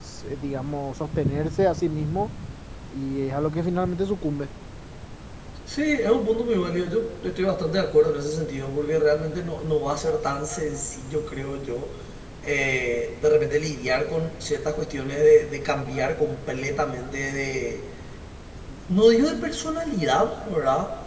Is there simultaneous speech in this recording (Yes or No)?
No